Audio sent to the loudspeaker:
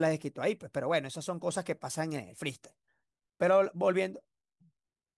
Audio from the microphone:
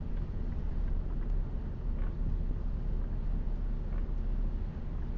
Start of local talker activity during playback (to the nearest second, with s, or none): none